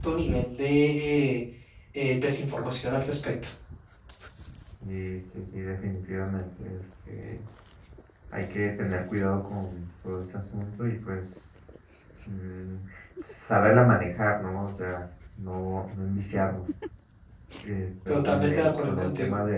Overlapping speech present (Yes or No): Yes